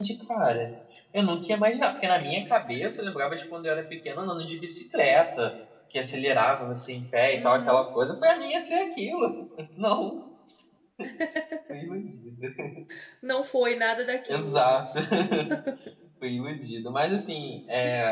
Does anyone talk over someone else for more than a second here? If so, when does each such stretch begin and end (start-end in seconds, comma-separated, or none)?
none